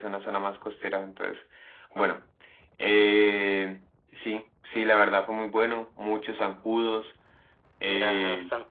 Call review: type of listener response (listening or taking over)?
taking over